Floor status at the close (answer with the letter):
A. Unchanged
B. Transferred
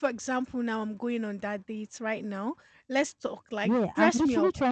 B